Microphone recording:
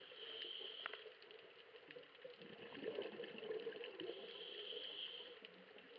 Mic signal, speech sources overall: neither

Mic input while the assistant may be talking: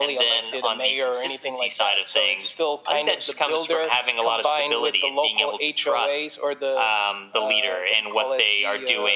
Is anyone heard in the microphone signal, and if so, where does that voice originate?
echo only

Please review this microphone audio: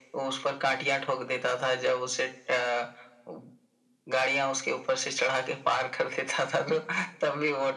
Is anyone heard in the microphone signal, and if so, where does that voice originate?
echo only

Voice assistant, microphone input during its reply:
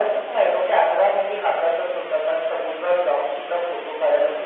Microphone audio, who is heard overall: echo only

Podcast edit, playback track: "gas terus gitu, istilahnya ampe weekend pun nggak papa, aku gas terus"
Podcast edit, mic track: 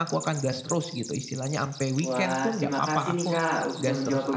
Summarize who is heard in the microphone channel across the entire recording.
both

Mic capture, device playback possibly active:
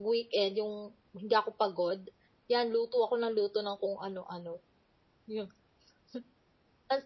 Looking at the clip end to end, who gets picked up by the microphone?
user only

